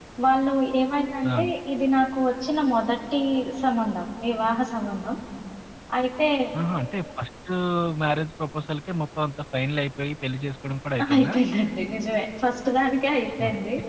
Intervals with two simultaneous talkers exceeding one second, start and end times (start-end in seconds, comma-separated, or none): none